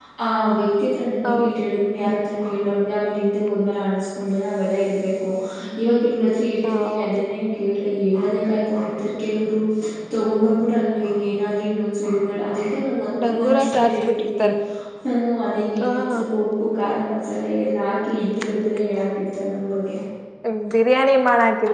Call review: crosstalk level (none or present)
present